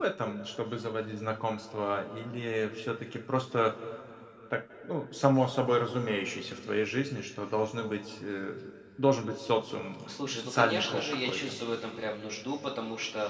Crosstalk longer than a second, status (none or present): present